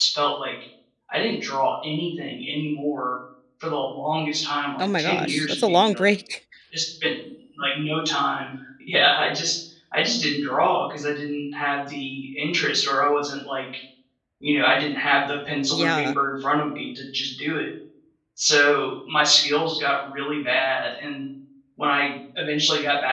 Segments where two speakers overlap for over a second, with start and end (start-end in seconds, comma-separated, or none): 4.8-6.1